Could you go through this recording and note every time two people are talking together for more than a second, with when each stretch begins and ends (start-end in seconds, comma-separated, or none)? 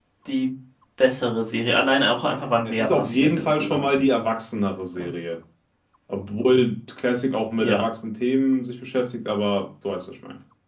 2.6-4.0